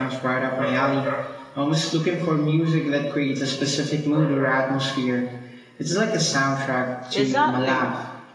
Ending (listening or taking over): taking over